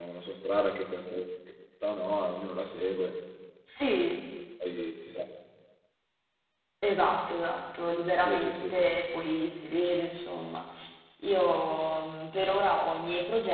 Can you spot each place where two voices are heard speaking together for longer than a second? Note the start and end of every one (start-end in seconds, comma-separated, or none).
none